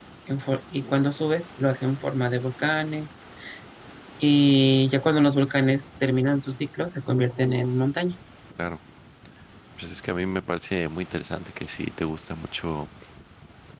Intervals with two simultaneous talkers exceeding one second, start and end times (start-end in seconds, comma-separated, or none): none